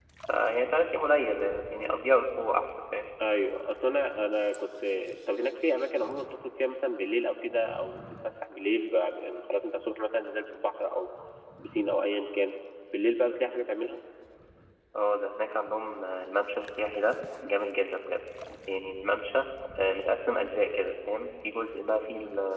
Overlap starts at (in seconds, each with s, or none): none